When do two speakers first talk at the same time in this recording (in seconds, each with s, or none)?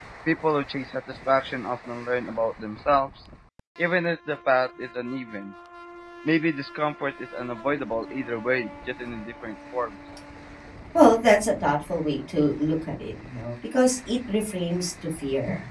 none